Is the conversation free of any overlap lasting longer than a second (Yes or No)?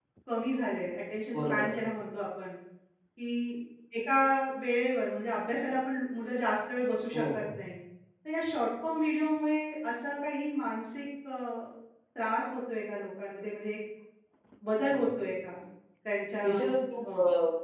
Yes